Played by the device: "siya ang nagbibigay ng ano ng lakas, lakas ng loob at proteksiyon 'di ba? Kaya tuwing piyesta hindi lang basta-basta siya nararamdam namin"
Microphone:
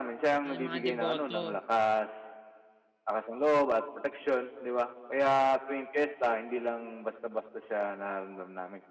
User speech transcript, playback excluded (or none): ah yung mga deboto.